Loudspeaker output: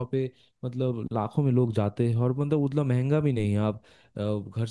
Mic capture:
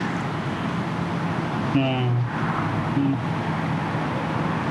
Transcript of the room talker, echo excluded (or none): हाँ हम्म,